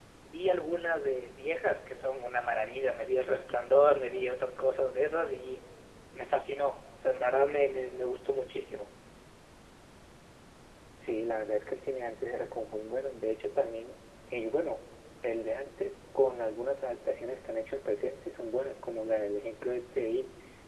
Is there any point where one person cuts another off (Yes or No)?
No